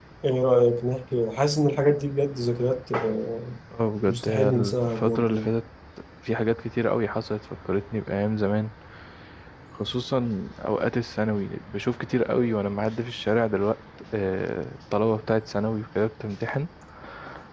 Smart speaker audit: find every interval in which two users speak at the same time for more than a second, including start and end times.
4.1-5.5

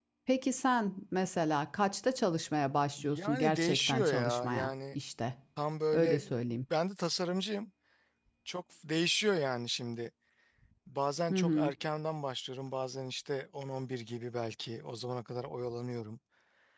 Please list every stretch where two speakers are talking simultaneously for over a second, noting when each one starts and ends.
3.0-5.0

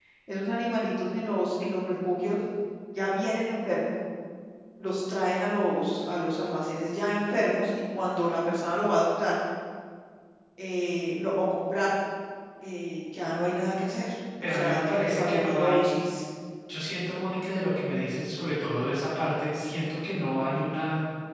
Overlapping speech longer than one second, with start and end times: 14.4-16.0

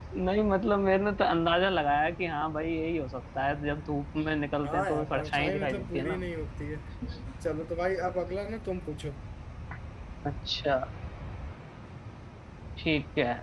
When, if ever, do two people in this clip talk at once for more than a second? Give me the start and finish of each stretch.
4.6-6.2

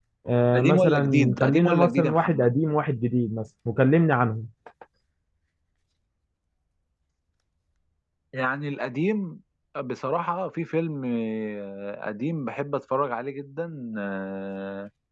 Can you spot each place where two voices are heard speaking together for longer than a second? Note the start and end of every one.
0.6-2.5

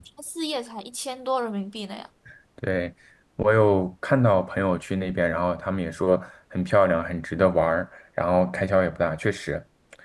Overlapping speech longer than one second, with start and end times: none

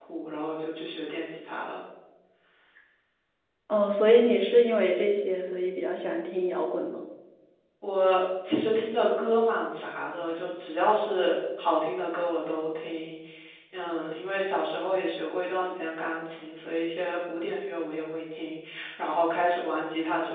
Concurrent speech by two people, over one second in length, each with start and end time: none

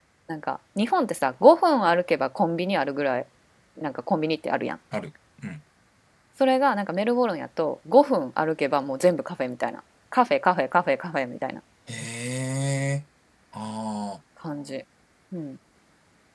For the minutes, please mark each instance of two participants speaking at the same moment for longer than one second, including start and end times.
none

